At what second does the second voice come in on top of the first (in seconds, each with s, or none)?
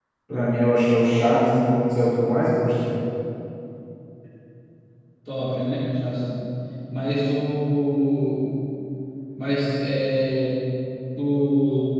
none